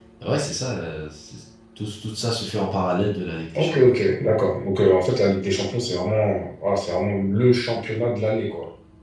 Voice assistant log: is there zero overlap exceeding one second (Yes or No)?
Yes